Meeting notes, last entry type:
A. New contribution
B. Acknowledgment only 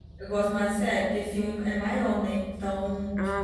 B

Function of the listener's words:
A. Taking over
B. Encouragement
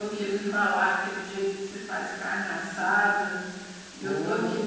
B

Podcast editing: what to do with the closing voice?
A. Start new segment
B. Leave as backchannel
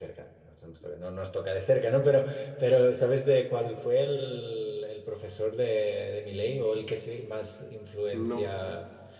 B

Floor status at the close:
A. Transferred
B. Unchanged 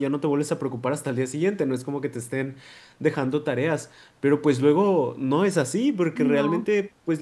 B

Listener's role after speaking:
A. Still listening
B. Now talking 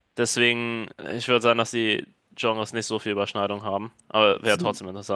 B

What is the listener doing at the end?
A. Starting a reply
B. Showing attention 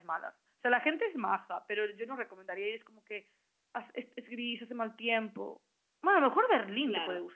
A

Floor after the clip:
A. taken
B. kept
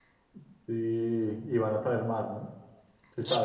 A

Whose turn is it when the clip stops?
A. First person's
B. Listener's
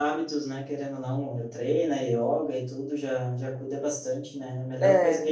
A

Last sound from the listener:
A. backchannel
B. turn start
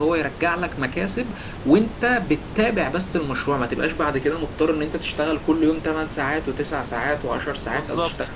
A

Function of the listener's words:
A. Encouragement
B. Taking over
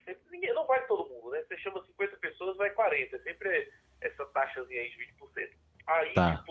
A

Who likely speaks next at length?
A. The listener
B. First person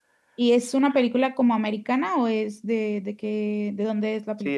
A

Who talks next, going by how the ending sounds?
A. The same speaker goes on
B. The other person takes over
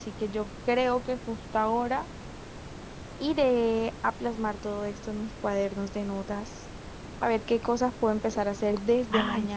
A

